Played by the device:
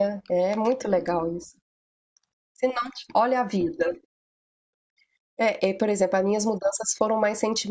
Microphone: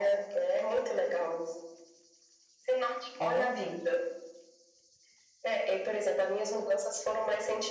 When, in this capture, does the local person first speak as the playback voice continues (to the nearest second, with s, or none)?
3 s